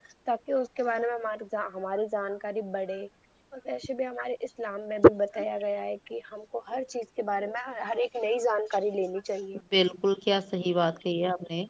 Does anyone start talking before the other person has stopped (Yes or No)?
No